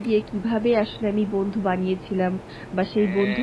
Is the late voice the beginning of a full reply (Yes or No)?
No